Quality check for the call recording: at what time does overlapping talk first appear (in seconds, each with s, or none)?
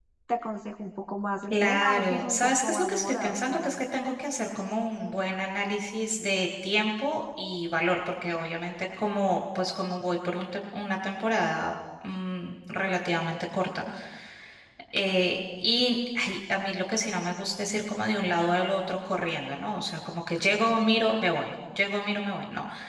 1.5 s